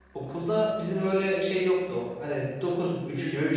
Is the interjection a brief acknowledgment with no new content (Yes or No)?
Yes